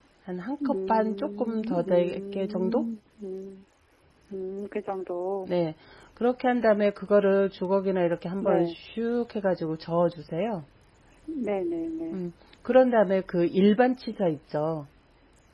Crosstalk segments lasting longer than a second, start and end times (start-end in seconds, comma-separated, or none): 0.6-2.8